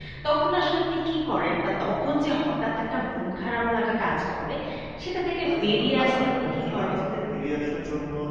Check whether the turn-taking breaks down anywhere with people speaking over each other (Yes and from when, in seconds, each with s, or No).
Yes, from 5.5 s